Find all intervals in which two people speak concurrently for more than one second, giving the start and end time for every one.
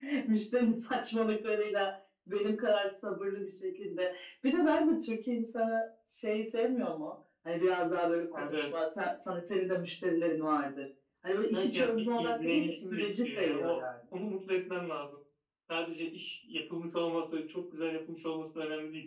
11.5-13.8

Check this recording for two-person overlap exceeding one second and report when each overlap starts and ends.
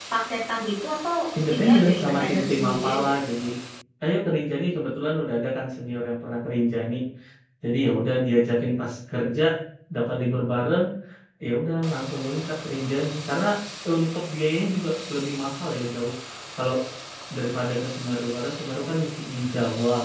1.5-3.1

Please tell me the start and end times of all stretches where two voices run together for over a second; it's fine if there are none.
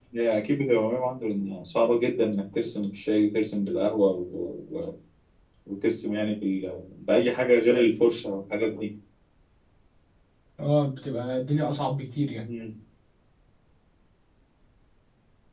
none

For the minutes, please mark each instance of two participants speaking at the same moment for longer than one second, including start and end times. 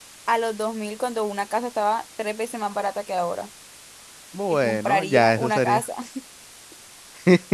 4.5-5.8

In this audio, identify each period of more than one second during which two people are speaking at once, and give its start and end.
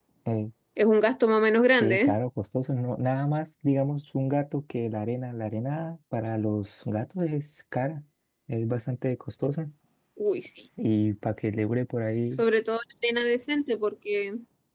none

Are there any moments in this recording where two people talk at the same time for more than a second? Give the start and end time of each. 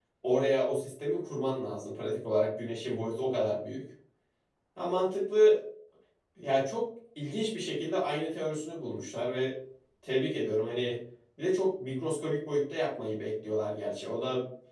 none

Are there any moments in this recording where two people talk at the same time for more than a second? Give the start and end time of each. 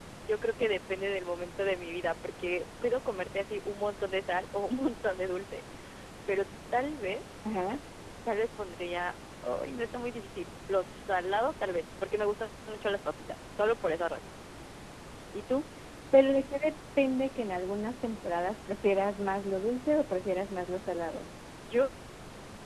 none

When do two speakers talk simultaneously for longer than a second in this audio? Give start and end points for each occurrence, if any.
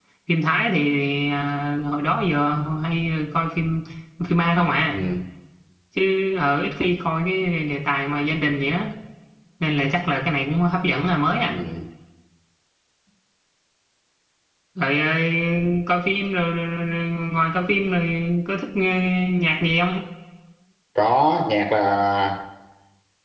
none

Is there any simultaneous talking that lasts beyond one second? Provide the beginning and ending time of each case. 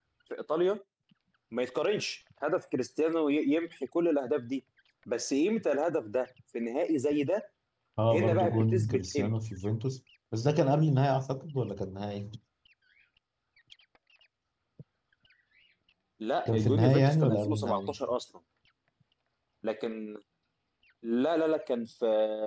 8.1-9.3, 16.5-17.9

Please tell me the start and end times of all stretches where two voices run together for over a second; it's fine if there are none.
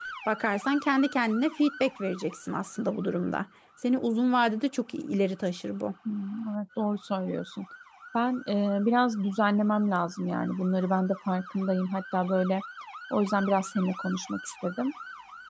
none

